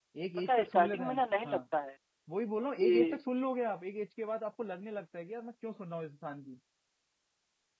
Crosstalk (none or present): present